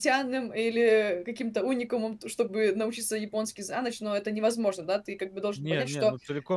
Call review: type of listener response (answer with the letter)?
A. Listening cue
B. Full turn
B